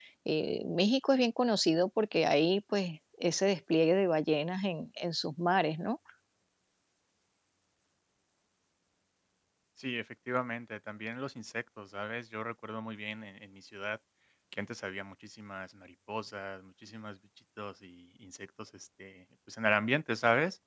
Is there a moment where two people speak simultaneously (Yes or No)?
No